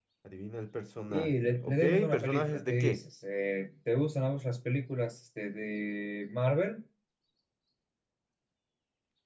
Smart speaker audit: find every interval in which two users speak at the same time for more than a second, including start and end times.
1.1-3.0

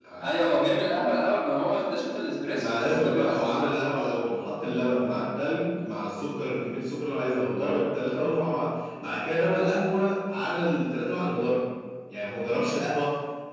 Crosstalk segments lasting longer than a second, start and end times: 2.6-4.0

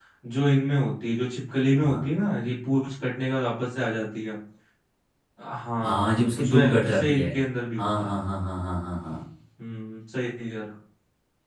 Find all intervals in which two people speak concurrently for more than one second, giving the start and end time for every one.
5.8-7.3

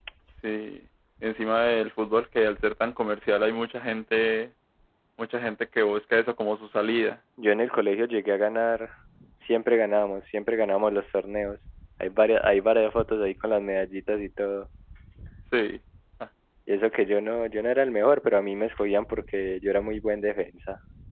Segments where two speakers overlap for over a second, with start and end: none

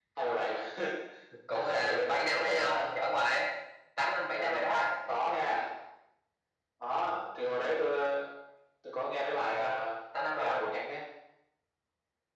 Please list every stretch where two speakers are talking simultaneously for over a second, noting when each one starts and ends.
1.5-2.9

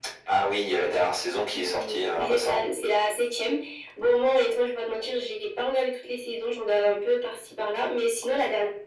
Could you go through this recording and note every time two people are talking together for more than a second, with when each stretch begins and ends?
1.3-2.6

